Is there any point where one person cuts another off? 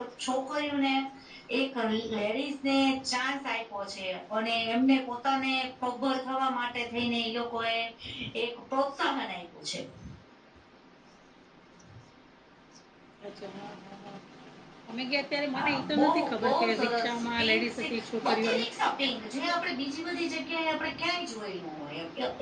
Yes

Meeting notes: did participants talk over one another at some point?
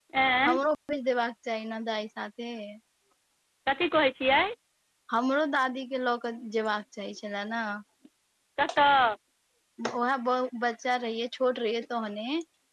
No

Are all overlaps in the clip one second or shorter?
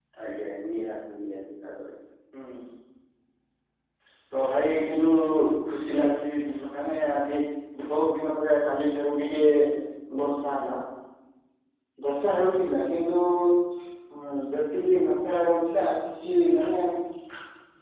Yes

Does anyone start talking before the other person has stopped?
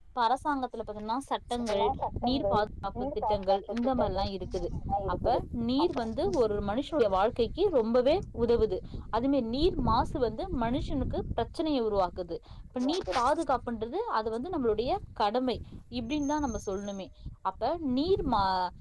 Yes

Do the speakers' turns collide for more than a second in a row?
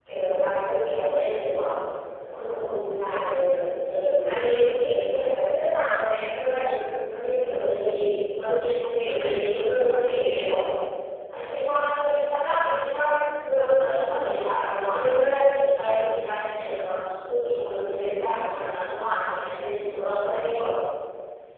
Yes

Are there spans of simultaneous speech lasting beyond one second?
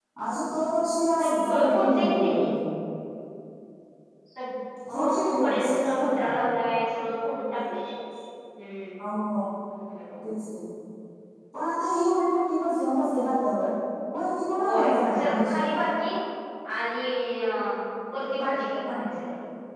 Yes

